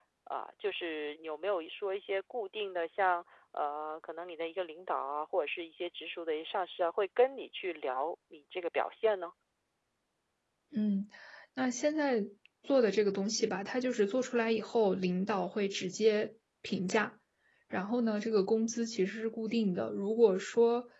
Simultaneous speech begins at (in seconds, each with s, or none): none